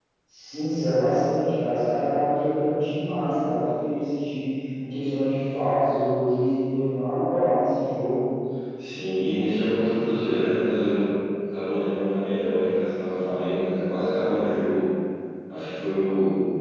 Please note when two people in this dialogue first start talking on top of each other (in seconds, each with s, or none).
none